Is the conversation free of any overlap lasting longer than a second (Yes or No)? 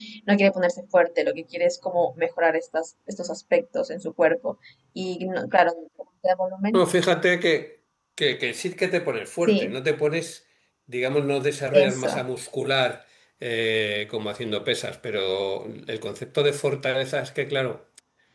Yes